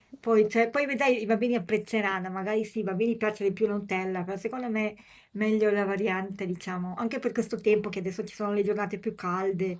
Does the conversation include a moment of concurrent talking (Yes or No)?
No